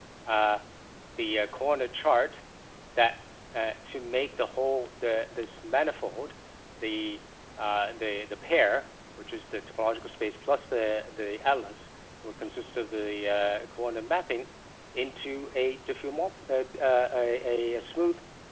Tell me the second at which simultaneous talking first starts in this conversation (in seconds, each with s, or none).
none